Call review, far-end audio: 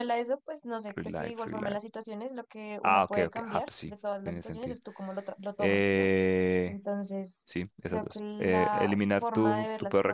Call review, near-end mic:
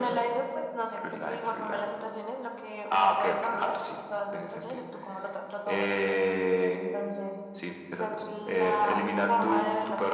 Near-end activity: none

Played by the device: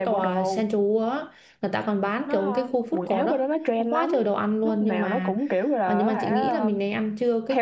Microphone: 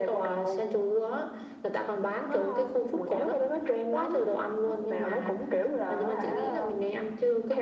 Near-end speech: none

